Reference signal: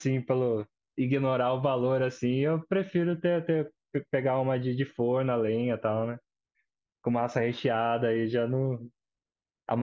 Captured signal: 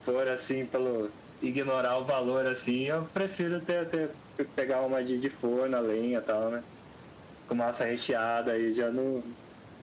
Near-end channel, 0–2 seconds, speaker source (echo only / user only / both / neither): echo only